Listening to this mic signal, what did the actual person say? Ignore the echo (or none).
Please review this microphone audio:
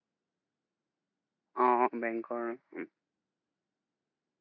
অ', বেংকৰ উম,